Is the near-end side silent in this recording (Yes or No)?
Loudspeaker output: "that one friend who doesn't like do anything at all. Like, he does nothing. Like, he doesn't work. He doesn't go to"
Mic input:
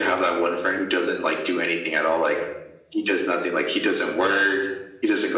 Yes